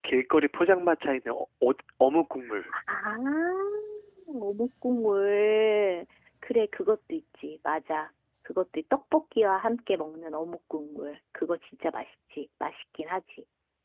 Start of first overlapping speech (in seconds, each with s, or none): none